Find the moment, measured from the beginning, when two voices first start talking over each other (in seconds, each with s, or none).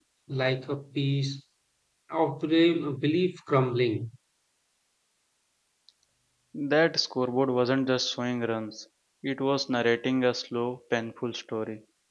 none